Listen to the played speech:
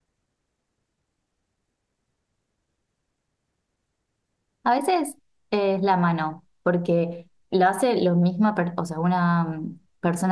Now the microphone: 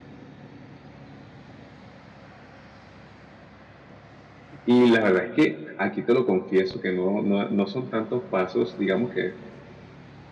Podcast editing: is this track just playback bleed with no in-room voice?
No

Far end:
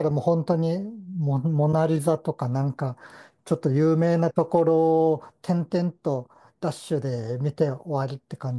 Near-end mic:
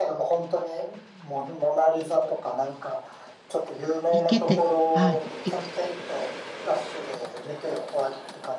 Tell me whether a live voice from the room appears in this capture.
Yes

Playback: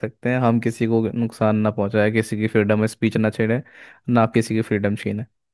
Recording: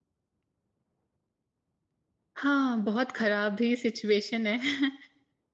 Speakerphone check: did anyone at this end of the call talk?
Yes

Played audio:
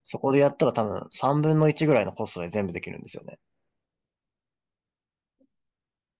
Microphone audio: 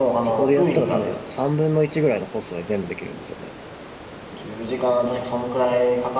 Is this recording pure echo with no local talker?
No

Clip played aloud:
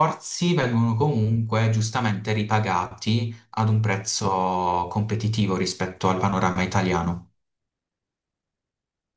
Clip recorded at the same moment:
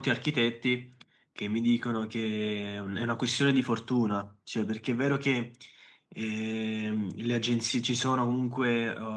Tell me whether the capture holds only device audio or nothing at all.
No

